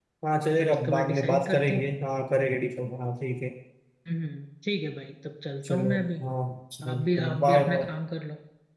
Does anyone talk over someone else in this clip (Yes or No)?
Yes